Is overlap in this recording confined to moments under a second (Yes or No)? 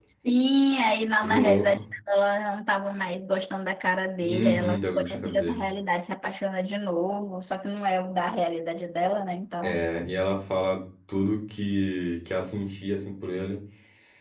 No